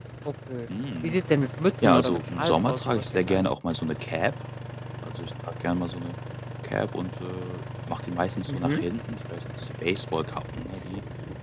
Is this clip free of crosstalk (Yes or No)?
No